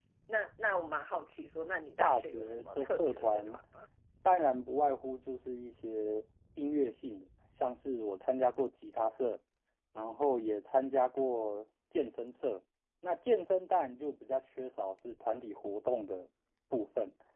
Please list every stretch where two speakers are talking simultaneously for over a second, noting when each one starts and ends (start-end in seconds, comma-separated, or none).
2.0-3.6